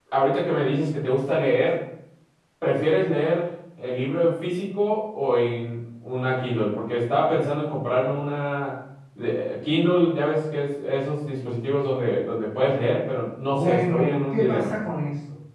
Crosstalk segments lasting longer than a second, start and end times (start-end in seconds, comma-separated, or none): 13.5-14.7